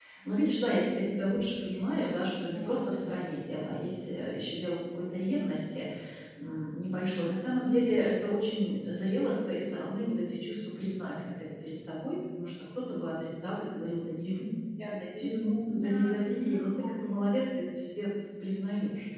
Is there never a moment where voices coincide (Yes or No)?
No